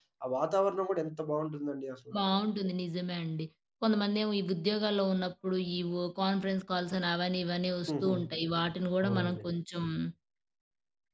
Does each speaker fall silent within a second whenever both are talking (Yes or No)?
Yes